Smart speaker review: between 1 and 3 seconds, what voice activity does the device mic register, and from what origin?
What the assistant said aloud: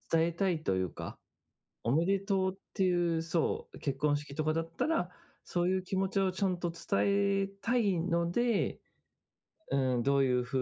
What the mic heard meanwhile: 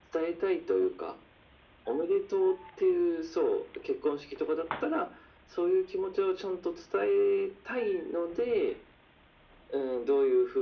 echo only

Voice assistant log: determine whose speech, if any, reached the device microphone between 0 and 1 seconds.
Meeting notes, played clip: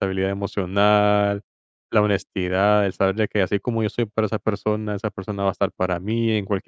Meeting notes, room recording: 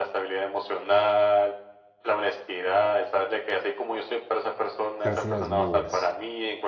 echo only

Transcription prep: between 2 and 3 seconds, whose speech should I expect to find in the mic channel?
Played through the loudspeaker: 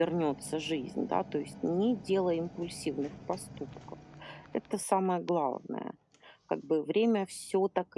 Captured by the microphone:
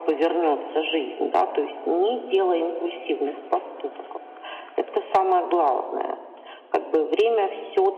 echo only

